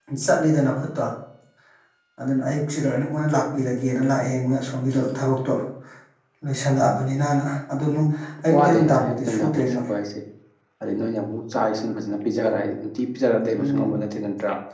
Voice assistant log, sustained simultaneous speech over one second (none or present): present